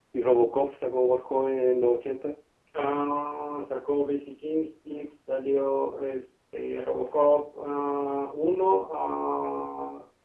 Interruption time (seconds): none

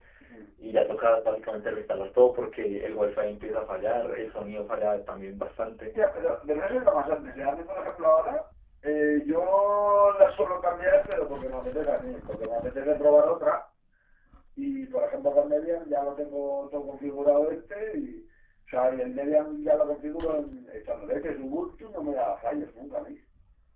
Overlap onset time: none

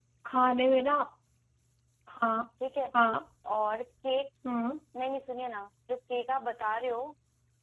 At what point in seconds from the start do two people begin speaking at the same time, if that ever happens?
none

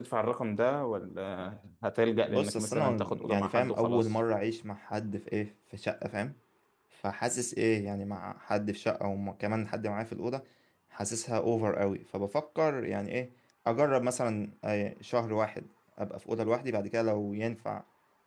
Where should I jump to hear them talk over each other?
2 s

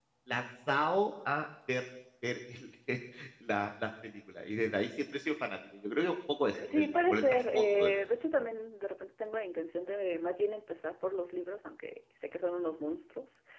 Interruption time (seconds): 7 s

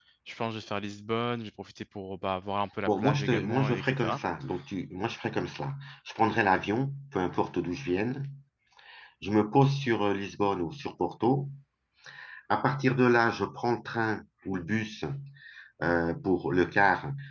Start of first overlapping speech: 3 s

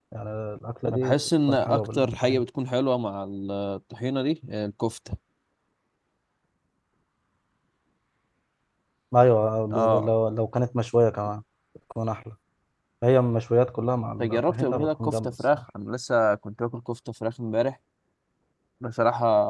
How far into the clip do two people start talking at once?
1 s

